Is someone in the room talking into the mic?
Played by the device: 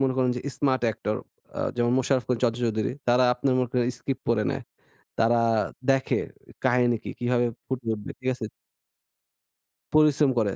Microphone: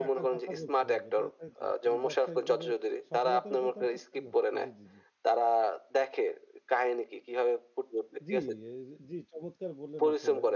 Yes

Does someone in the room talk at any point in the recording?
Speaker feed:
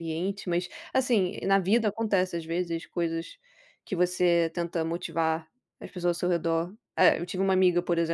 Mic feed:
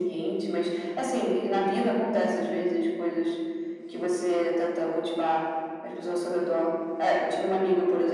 No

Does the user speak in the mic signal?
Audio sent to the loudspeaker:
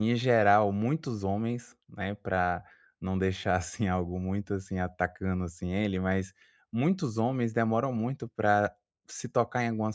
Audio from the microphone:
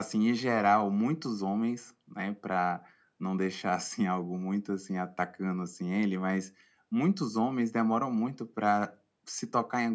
No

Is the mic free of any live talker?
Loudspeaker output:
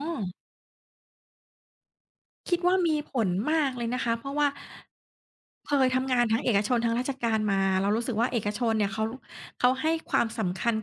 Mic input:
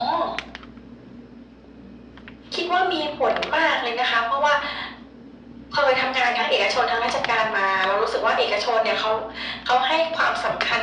Yes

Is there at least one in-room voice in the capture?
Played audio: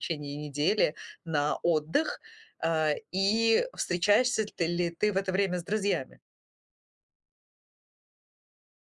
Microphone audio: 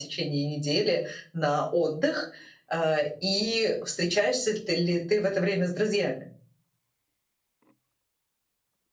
No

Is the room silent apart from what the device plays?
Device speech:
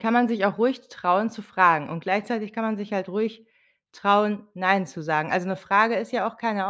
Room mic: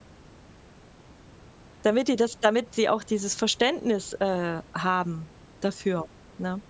No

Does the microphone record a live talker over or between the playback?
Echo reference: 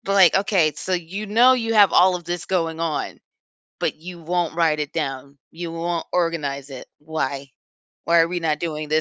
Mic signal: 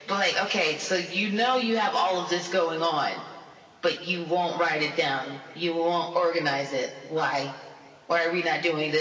No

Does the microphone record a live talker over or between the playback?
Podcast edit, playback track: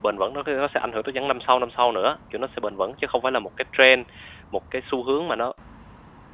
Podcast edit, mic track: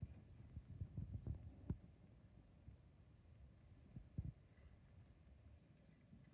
No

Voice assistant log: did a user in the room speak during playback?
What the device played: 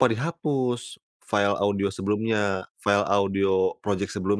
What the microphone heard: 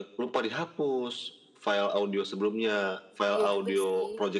Yes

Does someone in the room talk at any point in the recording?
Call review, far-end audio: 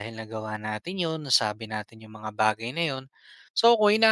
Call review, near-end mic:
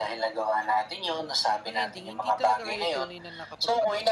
Yes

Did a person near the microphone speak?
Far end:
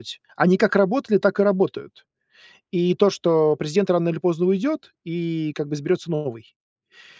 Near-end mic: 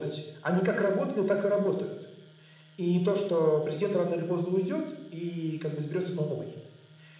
No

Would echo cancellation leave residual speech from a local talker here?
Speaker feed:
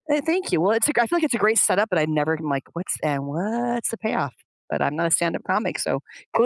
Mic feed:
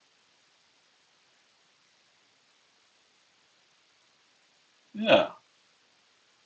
Yes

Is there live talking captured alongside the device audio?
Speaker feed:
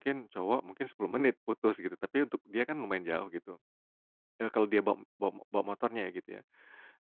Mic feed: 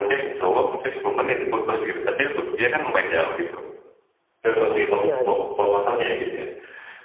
Yes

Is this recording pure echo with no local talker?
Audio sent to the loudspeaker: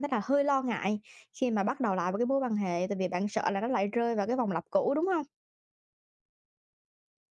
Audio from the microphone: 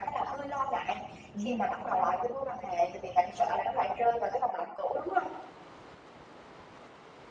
No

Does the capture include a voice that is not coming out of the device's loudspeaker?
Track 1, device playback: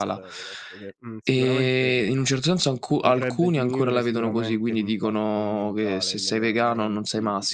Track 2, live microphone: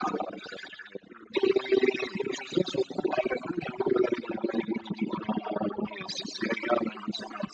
No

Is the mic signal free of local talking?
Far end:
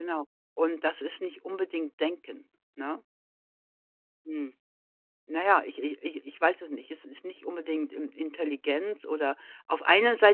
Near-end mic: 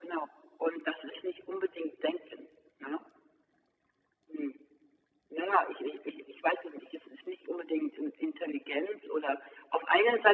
Yes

